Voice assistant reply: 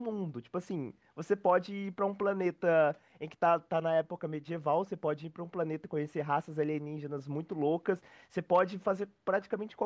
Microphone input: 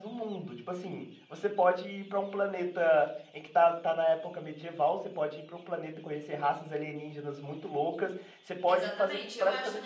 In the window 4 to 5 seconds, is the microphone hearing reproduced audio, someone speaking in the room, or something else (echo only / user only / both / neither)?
echo only